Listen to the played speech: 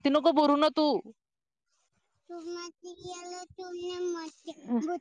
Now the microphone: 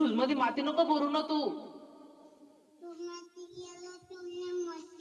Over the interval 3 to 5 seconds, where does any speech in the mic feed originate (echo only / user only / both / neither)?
echo only